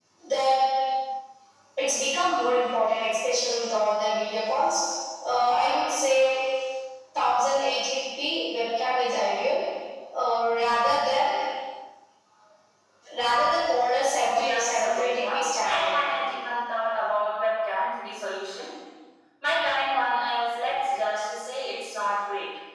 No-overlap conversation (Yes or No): No